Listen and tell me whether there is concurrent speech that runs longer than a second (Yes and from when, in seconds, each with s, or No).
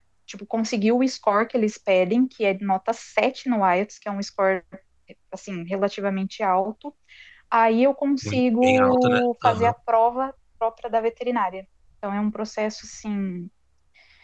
Yes, from 8.3 s